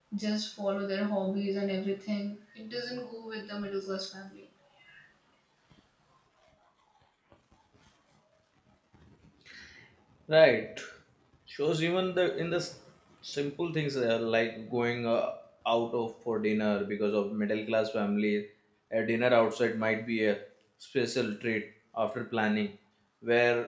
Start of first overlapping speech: none

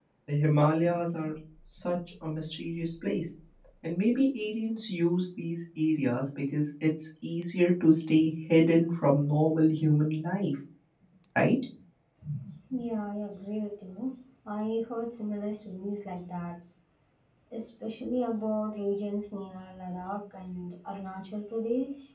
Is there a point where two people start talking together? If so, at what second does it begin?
none

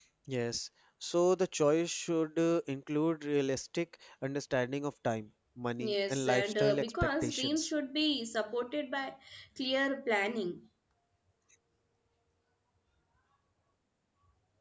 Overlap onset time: 5.8 s

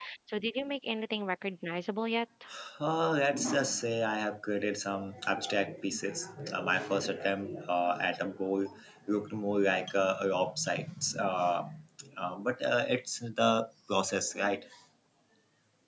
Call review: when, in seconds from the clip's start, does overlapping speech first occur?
none

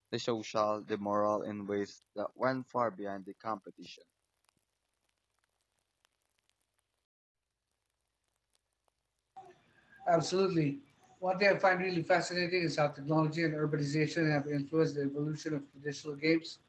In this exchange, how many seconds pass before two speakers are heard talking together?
none

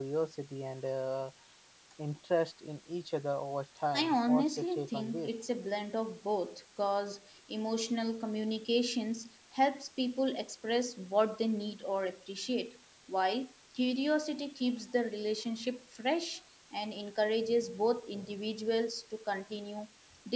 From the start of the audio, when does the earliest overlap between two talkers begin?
3.9 s

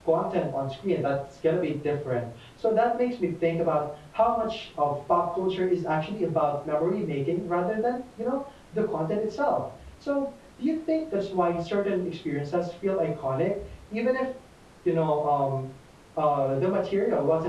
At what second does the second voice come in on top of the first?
none

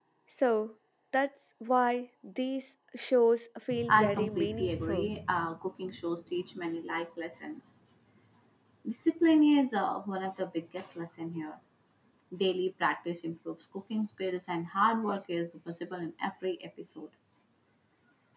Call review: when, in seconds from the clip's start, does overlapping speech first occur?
3.7 s

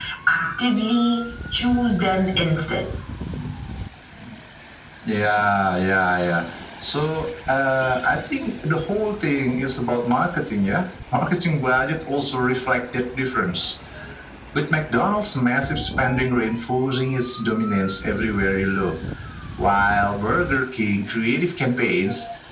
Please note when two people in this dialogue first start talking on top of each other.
none

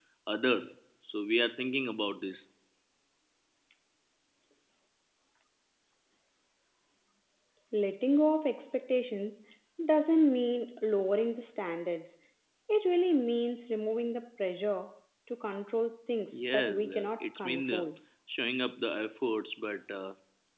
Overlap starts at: 16.3 s

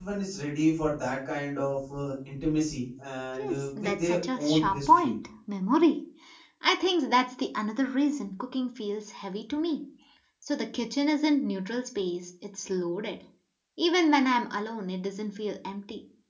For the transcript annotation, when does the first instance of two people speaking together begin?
3.4 s

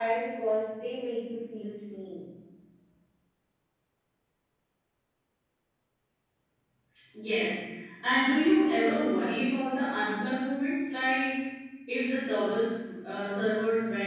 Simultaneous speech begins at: none

